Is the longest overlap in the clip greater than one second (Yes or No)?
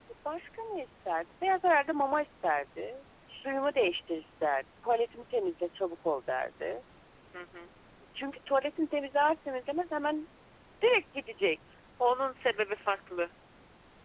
No